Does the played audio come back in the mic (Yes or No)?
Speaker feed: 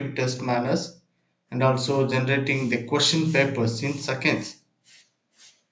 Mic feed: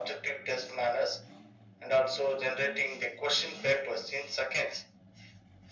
Yes